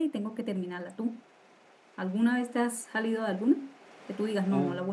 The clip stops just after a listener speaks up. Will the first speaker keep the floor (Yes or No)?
Yes